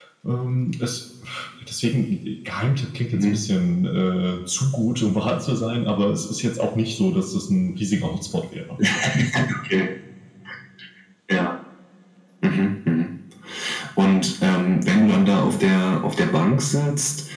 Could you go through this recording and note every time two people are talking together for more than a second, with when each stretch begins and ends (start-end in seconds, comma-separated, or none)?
none